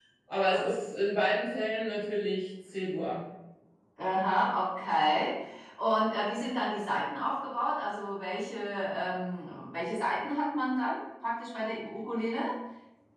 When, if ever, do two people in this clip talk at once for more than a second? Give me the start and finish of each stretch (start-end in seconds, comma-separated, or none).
none